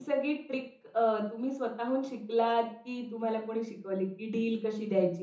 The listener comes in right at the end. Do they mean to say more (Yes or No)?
No